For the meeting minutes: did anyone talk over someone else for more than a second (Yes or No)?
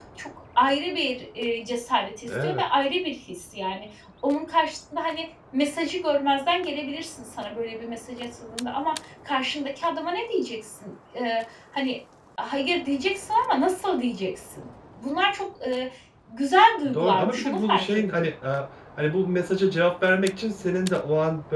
Yes